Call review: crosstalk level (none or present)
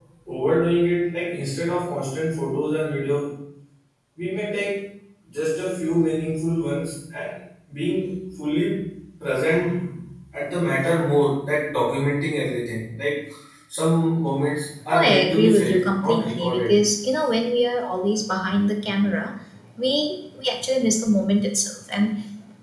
present